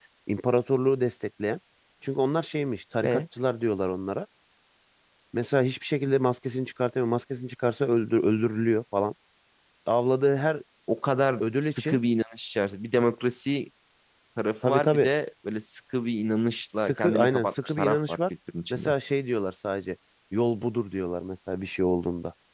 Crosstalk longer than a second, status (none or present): present